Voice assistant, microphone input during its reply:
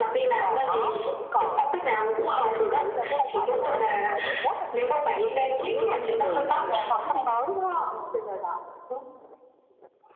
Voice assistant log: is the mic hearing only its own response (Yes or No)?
No